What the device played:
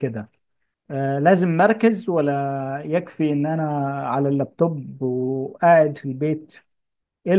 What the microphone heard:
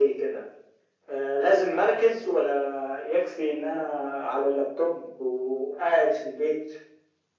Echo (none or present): present